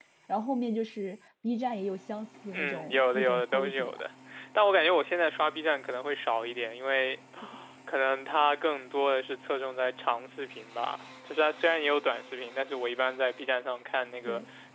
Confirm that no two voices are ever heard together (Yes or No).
No